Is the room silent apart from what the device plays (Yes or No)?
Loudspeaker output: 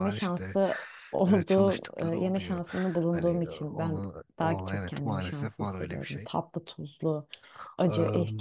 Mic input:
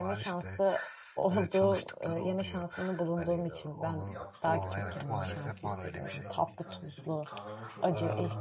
No